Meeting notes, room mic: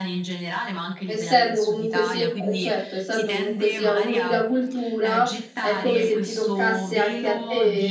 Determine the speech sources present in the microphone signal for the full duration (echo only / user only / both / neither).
both